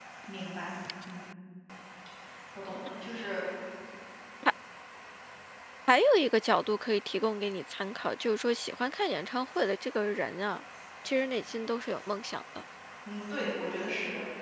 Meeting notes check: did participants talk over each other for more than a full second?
No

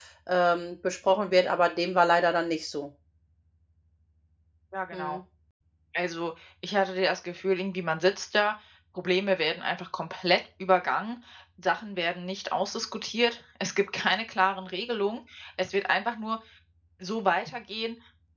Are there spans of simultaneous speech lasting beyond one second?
No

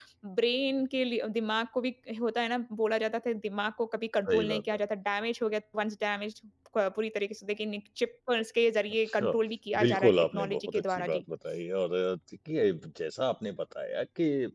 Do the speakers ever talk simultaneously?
Yes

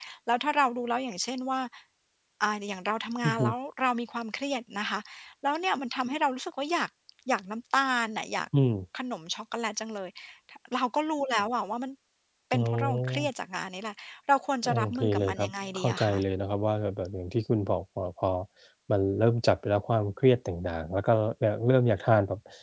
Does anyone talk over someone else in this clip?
Yes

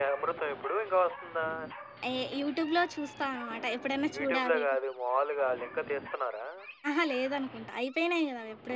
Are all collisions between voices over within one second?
Yes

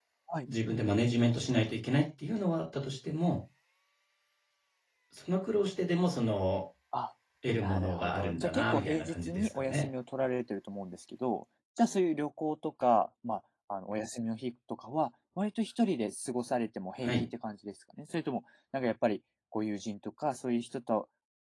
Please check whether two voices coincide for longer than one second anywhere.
Yes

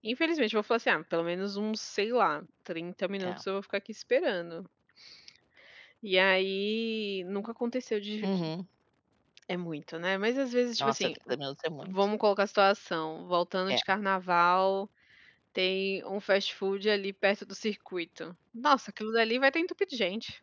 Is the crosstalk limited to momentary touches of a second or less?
Yes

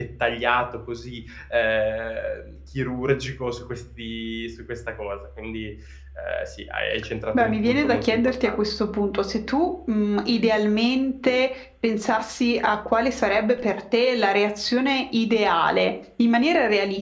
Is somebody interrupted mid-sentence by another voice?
Yes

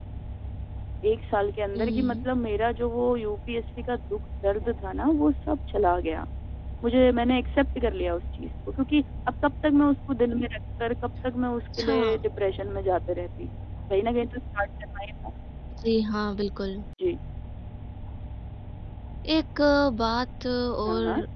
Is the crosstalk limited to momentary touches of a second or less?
Yes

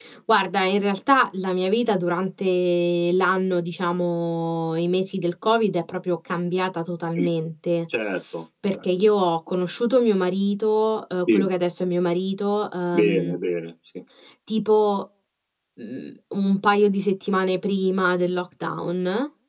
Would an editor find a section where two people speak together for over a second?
No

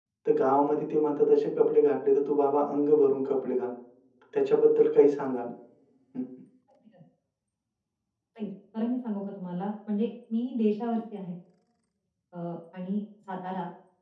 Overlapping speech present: No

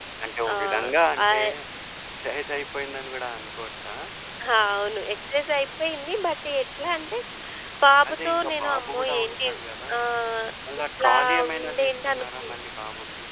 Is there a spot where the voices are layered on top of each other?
Yes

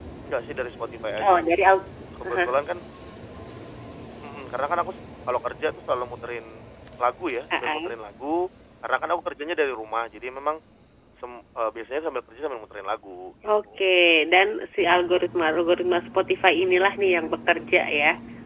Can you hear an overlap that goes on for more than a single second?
No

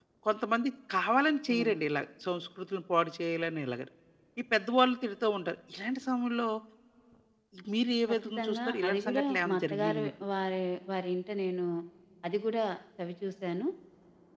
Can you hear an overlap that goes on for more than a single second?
Yes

